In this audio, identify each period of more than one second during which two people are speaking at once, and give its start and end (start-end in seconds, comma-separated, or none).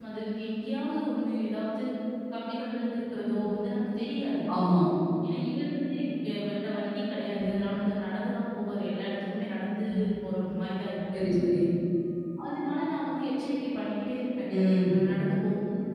none